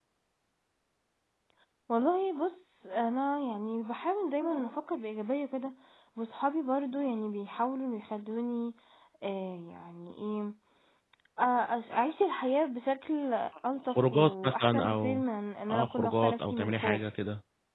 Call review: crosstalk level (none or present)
present